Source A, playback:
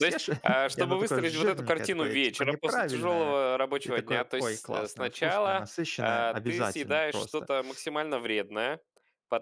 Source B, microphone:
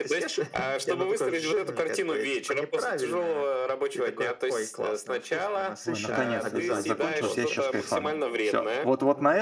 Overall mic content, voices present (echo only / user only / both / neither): both